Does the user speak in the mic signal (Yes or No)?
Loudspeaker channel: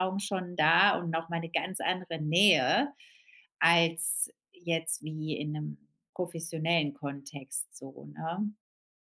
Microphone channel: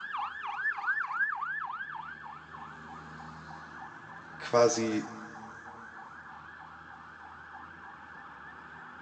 Yes